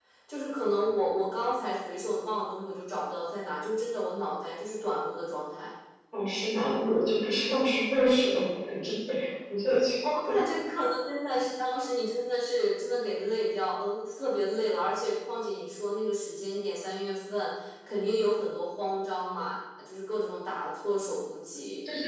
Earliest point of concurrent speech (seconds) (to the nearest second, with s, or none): none